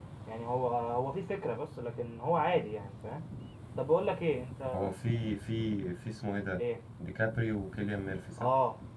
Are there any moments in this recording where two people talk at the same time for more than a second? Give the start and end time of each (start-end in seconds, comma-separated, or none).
none